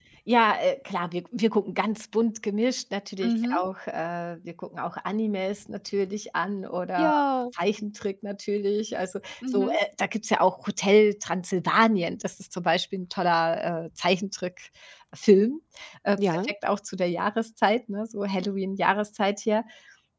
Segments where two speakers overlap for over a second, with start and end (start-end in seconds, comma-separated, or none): none